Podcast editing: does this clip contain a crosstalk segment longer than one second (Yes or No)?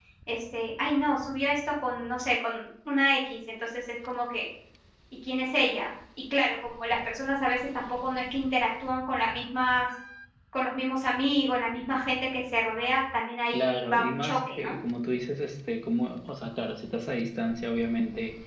Yes